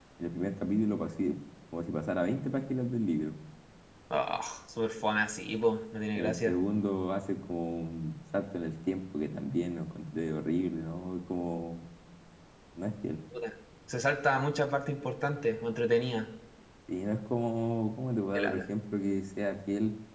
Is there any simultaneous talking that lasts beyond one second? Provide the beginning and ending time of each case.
none

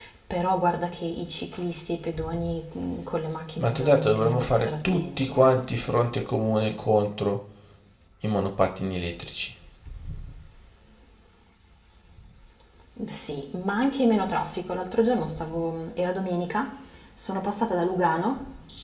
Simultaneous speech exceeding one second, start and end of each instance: 3.6-5.6

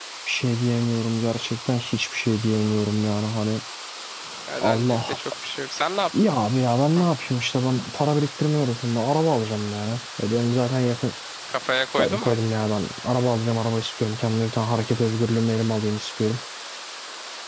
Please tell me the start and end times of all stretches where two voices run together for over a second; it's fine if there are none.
none

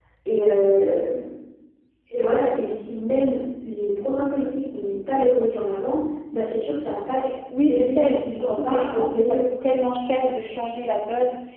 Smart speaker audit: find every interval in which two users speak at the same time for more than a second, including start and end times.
7.7-9.4

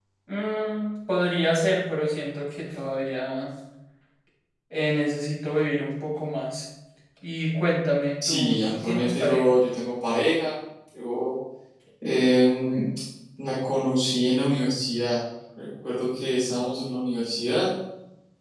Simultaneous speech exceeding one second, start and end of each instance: 8.2-9.5

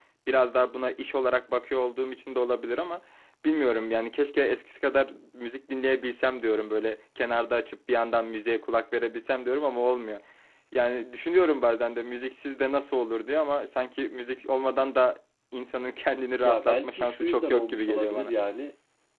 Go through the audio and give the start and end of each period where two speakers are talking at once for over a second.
16.4-18.3

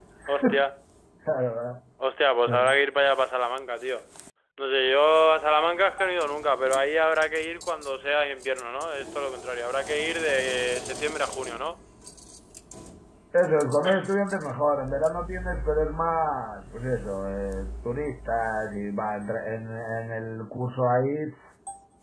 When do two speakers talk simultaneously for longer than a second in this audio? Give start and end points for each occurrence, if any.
none

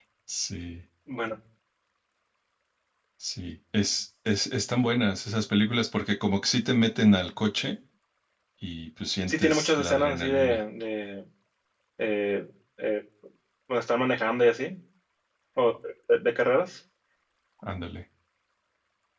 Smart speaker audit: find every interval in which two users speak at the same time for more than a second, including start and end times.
9.3-10.6

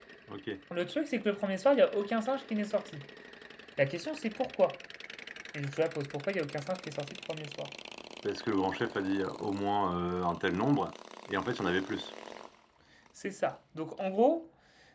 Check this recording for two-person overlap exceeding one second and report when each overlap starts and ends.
none

